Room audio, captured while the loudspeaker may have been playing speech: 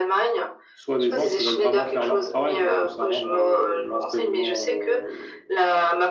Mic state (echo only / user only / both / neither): both